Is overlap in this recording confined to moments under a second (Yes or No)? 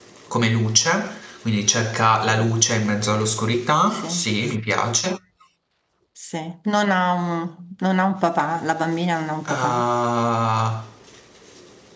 Yes